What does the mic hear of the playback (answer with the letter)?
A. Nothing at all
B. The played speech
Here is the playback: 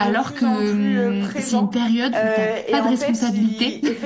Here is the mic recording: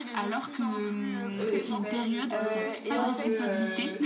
B